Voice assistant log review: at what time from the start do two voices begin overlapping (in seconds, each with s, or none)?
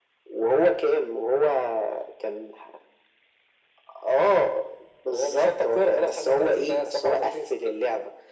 5.1 s